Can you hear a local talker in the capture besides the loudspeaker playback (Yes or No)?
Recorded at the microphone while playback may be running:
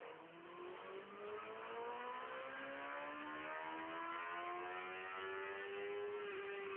No